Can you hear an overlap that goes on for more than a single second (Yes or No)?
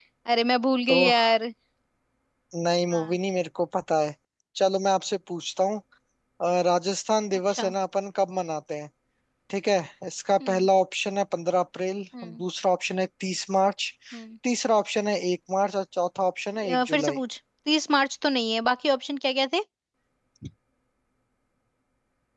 No